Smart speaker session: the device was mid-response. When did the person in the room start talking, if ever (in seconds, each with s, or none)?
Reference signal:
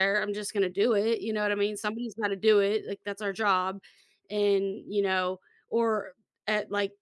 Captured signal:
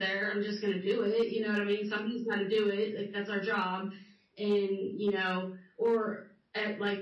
none